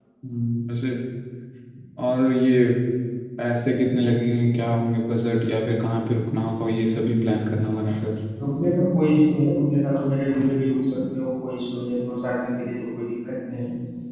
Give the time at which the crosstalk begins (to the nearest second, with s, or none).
none